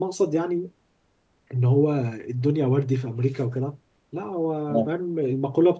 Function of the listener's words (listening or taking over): listening